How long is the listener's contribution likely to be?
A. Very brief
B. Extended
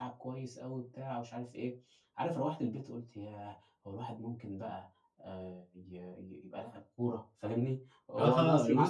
B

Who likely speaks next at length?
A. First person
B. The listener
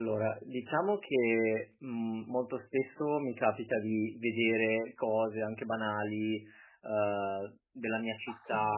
A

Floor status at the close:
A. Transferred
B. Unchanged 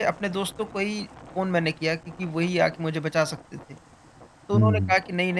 B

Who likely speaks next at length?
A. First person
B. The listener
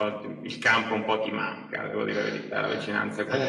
B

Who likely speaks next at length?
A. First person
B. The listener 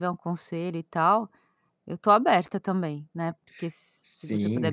B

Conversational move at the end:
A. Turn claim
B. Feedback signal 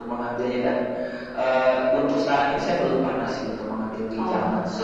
A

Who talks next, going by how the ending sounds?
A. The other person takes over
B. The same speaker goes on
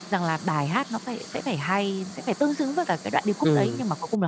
A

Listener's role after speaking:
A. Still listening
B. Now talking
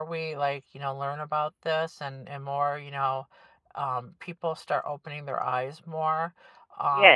B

